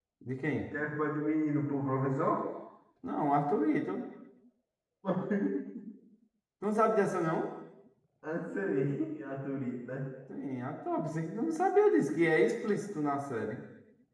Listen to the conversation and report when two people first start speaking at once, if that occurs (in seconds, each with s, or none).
none